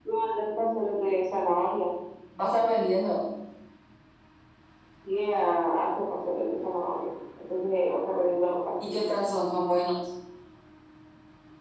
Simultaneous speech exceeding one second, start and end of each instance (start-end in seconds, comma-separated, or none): none